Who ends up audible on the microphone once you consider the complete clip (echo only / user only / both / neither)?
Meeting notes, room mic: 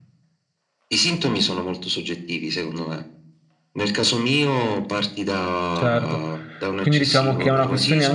both